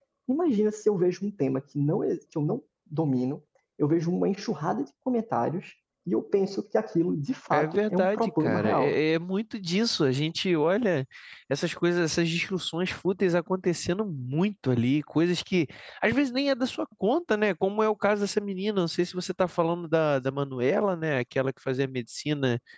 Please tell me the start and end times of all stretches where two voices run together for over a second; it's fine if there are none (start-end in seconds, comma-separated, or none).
7.5-9.0